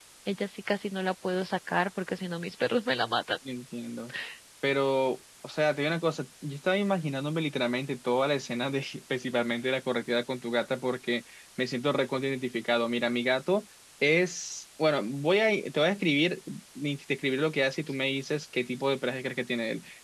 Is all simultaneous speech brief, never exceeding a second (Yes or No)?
Yes